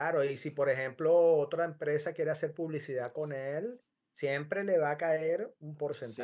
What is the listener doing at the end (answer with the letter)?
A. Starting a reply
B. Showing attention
A